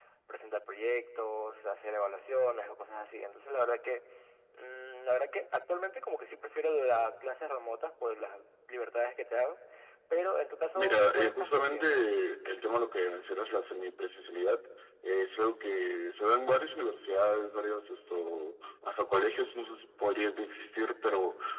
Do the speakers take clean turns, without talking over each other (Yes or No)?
No